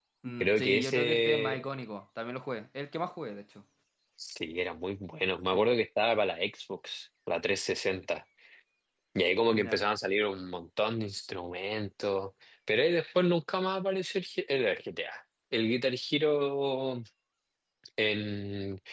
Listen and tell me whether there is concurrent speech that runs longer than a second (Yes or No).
Yes